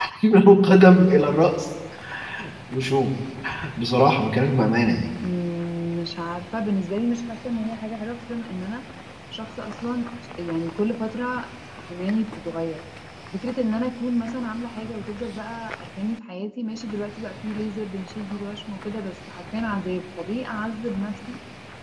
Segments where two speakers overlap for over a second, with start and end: none

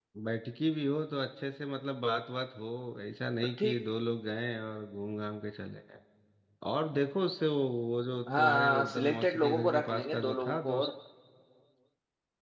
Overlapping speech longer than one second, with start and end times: 8.4-10.9

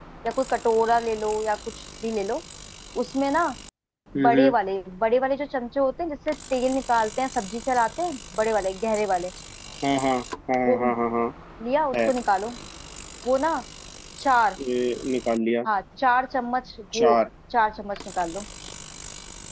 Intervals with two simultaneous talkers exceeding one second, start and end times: none

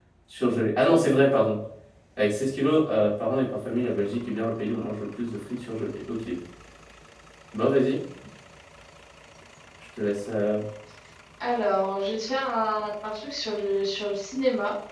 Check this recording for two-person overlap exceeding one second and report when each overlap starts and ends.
none

